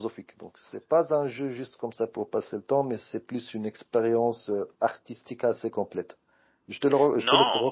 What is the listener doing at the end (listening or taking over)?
taking over